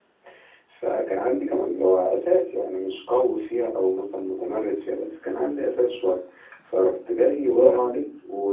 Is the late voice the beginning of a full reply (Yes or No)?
No